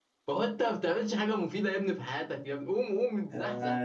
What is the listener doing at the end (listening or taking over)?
listening